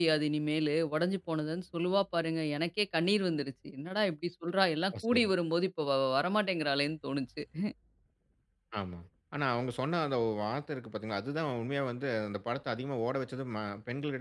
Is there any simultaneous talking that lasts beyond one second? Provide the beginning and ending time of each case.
none

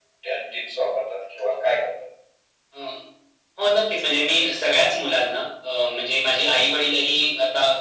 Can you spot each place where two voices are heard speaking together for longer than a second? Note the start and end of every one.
none

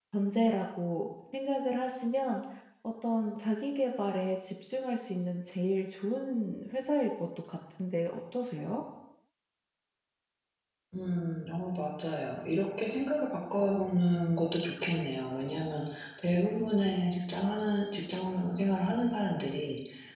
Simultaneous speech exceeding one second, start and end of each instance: none

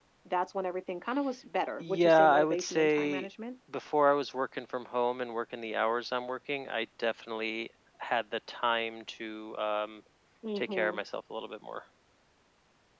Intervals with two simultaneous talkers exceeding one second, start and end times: 1.8-3.3

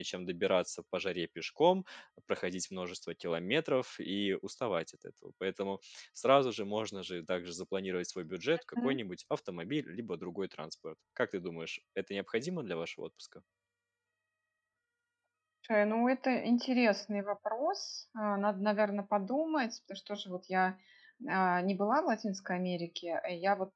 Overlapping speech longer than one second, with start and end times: none

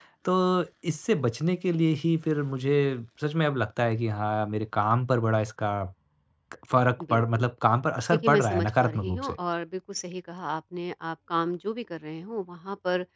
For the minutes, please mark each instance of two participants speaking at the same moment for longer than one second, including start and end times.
8.1-9.4

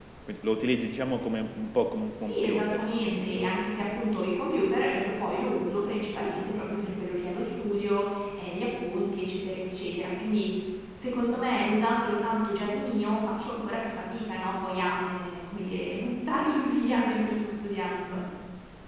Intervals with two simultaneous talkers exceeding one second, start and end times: 2.1-3.5

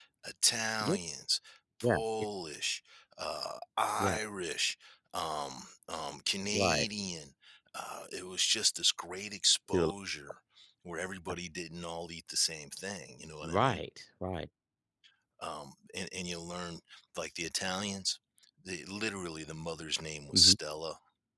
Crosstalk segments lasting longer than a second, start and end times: none

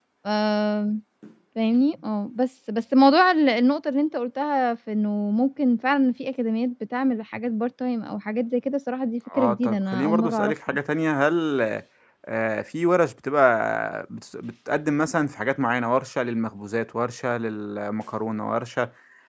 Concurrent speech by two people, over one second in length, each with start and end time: 9.4-10.8

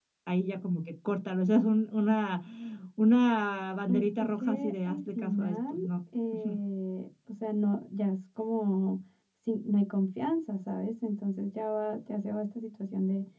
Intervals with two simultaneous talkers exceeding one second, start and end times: 3.9-5.7

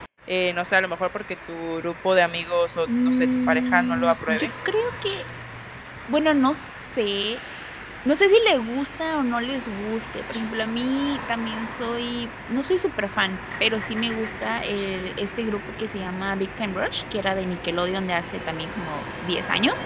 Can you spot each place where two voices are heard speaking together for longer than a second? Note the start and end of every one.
2.9-4.5

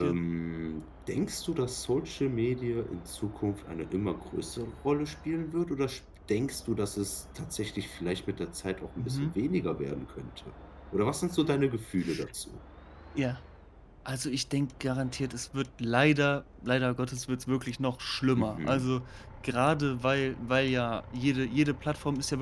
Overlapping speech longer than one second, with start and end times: none

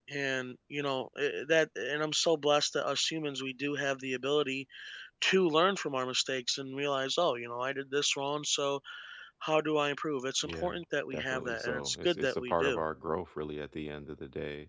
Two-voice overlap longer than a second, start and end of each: 11.1-12.8

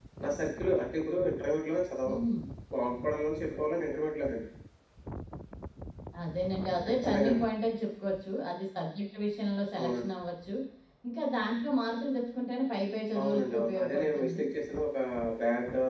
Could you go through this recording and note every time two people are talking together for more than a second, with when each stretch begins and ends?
13.2-14.4

